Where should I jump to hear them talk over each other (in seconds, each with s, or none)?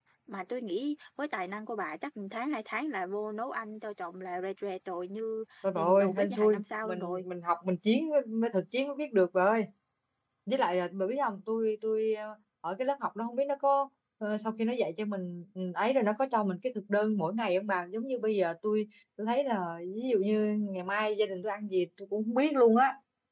5.6 s